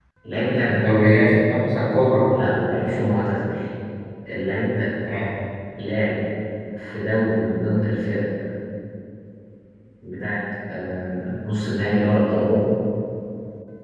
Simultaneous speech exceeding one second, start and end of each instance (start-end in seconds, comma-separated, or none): none